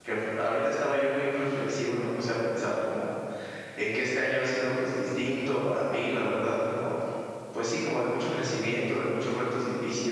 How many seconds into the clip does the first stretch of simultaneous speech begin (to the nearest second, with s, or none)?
none